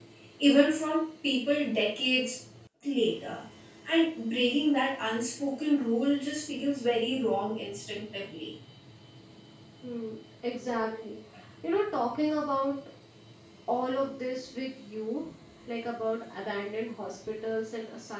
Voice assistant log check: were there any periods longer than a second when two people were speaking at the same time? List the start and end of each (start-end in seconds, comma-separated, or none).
none